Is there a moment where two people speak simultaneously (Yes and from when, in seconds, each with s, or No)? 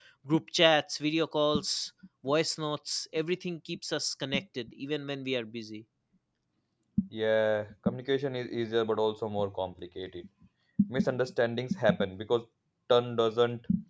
No